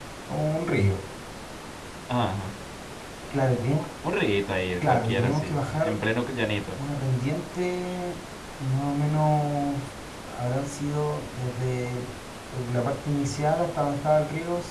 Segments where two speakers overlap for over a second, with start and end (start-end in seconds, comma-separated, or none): 4.8-6.0